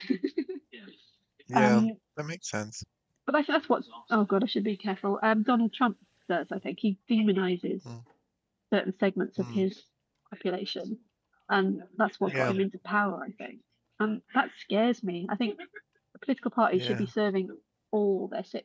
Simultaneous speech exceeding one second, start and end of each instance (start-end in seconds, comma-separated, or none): none